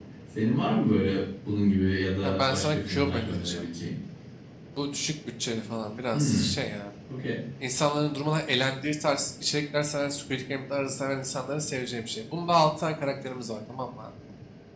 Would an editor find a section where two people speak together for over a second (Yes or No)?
Yes